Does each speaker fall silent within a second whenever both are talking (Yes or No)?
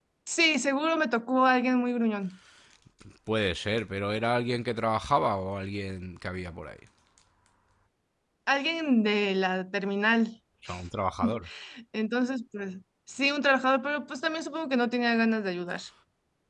Yes